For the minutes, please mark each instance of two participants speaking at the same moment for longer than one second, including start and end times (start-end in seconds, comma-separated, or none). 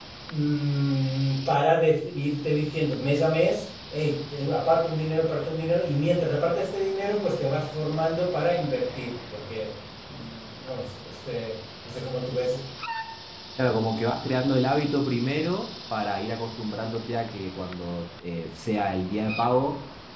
none